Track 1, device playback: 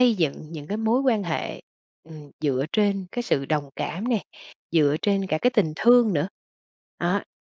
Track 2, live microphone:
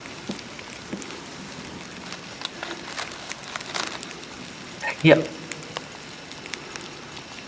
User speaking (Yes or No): Yes